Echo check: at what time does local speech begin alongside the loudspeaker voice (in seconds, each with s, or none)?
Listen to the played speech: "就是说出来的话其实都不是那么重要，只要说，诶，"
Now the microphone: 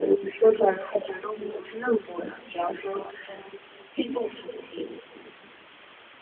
none